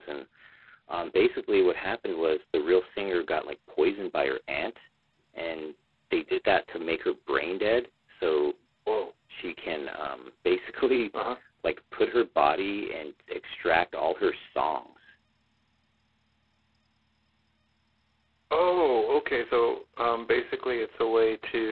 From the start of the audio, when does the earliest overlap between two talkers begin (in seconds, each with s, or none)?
none